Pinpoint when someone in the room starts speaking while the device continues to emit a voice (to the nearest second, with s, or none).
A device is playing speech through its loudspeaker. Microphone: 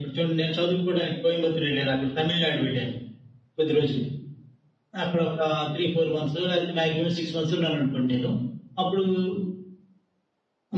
none